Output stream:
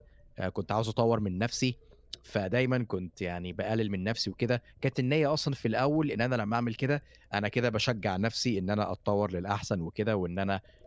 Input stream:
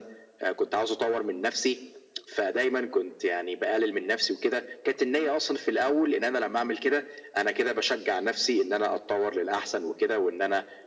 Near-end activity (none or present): none